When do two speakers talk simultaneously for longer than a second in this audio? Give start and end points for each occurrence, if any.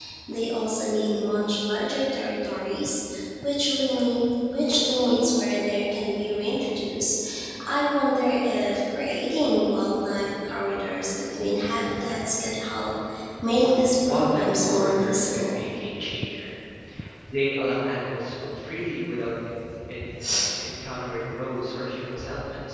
14.0-15.7

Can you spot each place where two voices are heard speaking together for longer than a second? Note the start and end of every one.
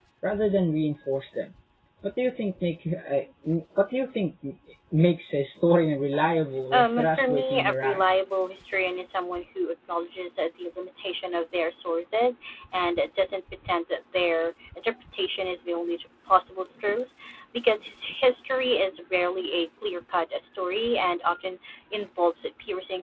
6.7-8.1

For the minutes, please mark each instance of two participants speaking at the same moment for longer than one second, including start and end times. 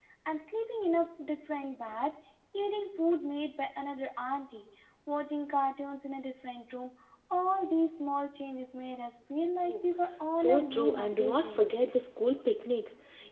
10.3-11.7

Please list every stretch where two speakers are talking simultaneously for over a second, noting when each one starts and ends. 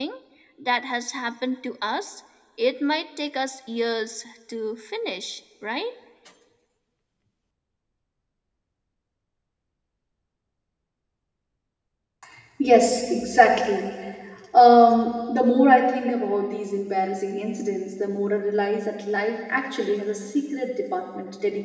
none

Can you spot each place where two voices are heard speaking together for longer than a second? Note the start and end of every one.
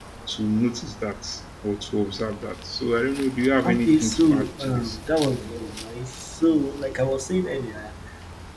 3.7-5.0

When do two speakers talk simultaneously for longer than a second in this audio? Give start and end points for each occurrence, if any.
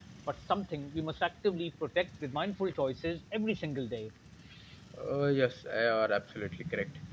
none

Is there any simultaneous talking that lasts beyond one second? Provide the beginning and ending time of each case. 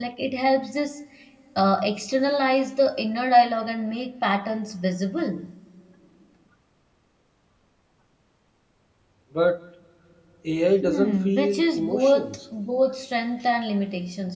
10.8-12.4

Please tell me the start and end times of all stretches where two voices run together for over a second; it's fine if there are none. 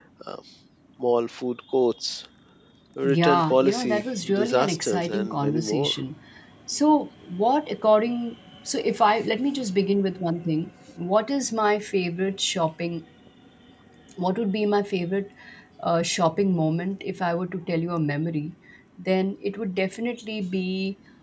3.0-6.0

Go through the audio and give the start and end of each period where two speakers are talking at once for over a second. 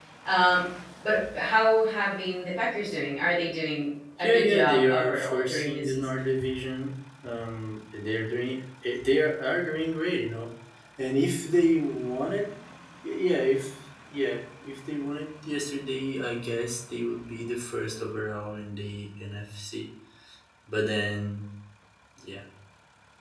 4.2-6.1

